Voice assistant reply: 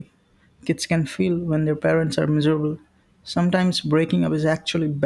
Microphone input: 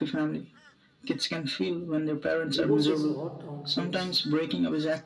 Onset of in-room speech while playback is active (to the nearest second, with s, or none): 3 s